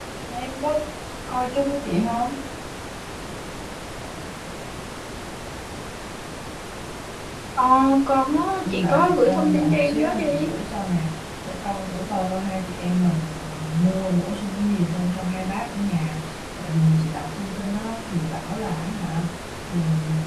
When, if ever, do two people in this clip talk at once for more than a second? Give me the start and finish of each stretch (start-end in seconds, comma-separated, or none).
8.6-10.5